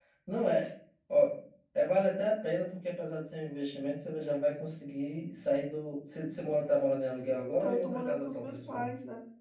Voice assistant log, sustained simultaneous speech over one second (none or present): present